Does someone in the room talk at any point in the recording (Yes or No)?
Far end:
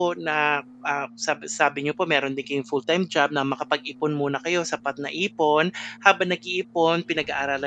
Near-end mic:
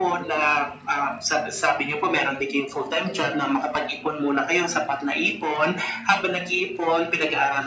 No